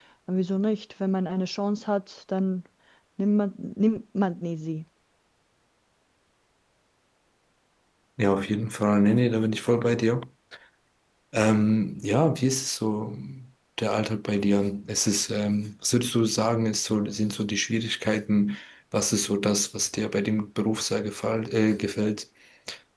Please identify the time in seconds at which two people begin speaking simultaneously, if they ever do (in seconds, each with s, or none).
none